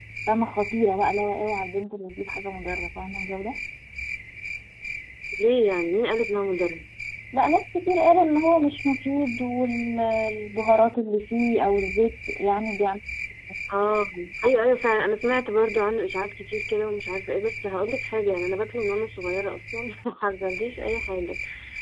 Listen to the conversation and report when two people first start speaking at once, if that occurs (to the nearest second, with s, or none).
none